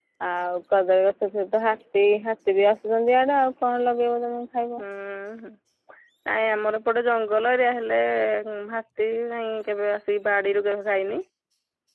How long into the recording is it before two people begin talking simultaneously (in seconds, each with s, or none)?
none